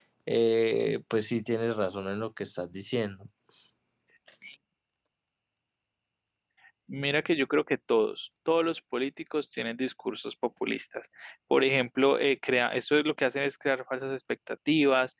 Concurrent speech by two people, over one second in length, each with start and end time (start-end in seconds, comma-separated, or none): none